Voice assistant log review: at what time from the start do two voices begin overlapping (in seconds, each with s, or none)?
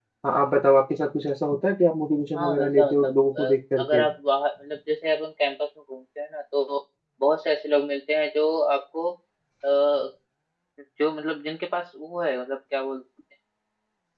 2.4 s